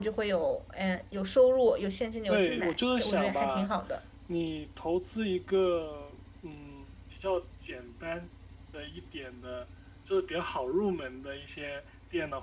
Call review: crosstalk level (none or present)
present